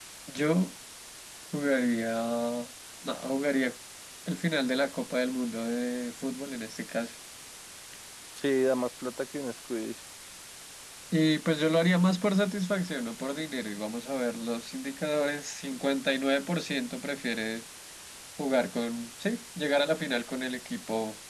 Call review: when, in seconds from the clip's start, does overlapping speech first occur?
none

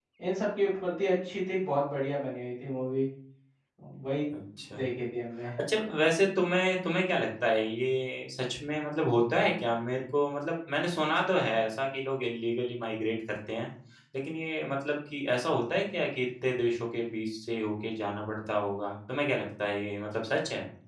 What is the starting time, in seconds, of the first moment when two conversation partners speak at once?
none

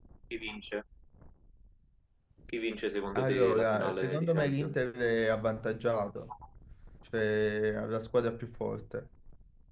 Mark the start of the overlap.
3.1 s

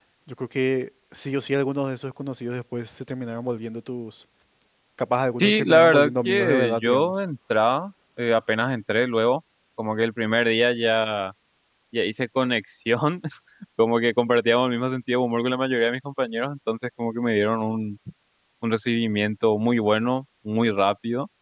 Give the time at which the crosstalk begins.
5.4 s

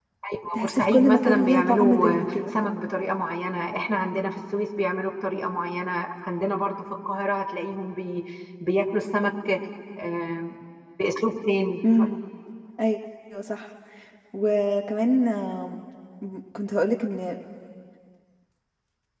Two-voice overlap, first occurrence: 0.5 s

